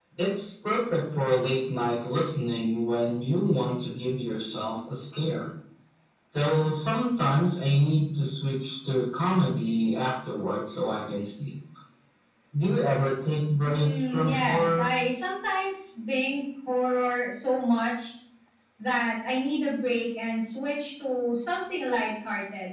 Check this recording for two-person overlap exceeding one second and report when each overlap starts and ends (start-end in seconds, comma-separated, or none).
13.6-14.8